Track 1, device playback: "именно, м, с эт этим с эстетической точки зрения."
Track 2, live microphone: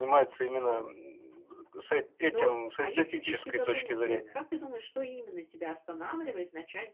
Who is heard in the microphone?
both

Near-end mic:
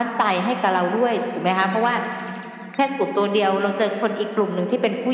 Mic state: echo only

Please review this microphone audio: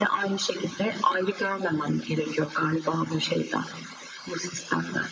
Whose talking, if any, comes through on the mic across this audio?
echo only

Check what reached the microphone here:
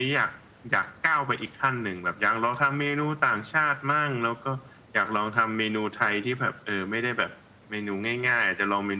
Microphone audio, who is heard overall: echo only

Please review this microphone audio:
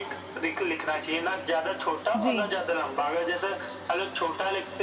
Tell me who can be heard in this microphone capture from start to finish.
both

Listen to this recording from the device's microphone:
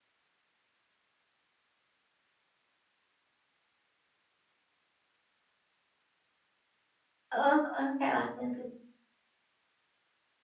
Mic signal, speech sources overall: user only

